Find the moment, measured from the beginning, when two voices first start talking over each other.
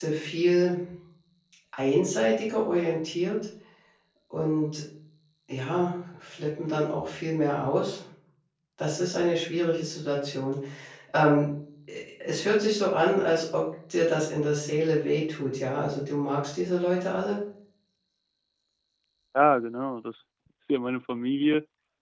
none

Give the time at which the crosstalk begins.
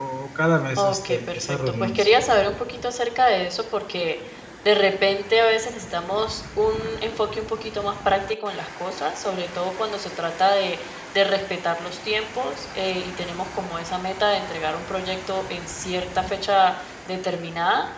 0.8 s

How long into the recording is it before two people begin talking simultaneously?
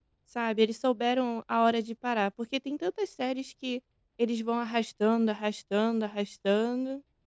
none

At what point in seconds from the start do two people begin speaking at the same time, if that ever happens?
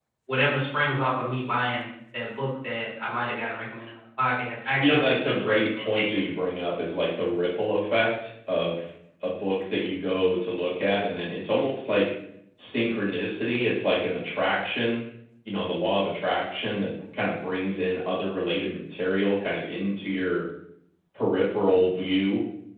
4.6 s

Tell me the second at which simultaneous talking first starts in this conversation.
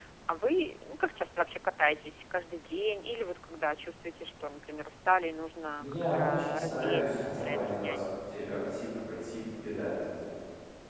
5.8 s

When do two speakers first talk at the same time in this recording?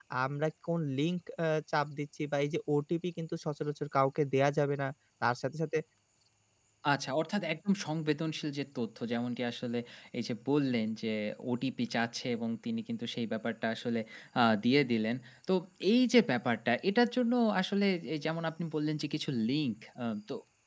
none

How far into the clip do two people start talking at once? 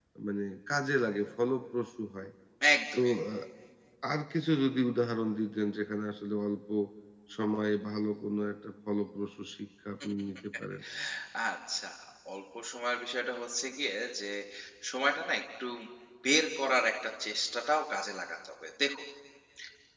none

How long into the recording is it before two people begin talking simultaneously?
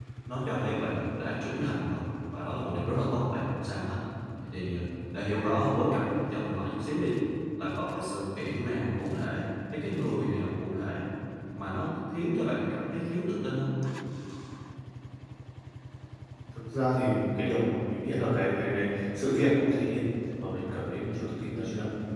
none

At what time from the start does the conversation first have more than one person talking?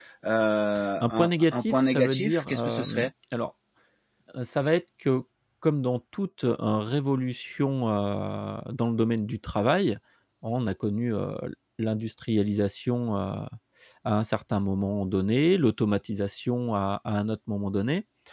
1.0 s

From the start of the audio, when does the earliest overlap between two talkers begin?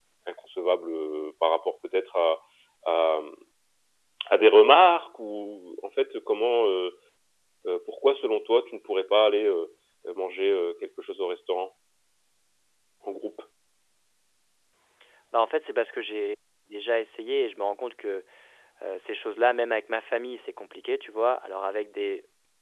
none

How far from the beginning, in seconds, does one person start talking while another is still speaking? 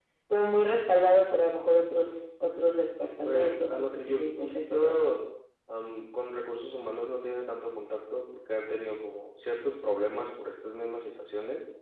3.2 s

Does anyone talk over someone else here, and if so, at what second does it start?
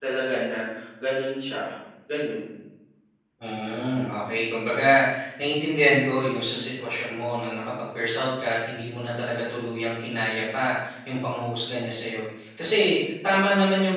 none

